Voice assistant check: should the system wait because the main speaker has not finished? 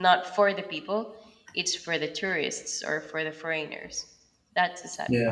No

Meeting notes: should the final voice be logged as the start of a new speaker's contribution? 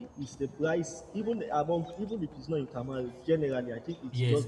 Yes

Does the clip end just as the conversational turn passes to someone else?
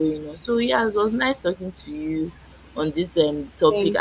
No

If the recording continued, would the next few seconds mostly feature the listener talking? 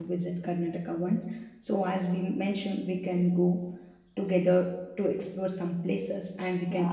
Yes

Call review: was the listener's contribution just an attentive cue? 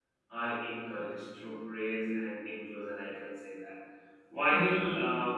Yes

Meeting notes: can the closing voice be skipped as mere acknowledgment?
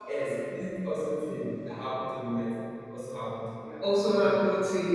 No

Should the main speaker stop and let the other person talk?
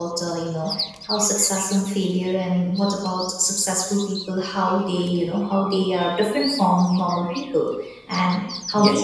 Yes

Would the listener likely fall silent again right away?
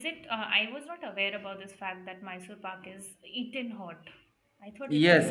No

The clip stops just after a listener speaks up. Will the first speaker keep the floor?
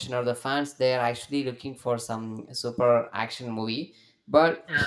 Yes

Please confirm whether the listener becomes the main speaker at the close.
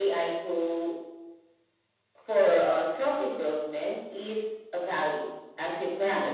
No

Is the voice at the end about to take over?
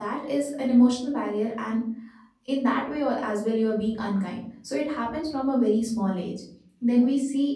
No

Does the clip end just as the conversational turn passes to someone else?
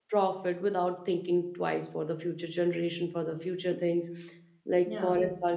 No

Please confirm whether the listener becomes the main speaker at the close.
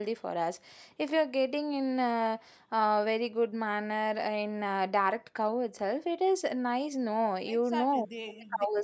Yes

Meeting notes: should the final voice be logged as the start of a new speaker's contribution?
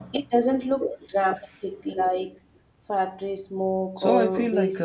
Yes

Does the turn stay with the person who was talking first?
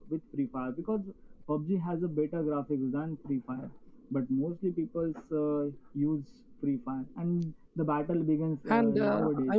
No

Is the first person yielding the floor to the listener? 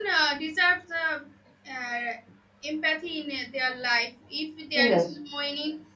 No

